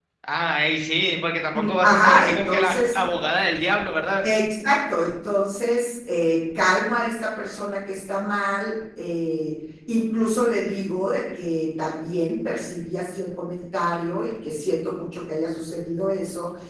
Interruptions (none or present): present